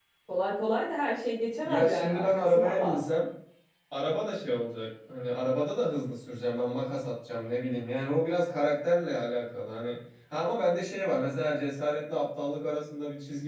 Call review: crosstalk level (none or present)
present